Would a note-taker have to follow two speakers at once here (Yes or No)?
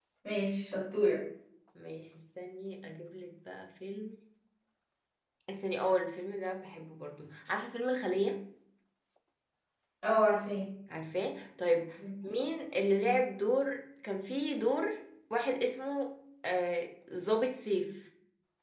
No